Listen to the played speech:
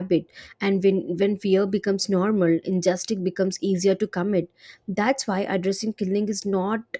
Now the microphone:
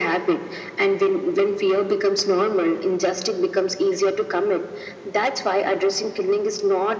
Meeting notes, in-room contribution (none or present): none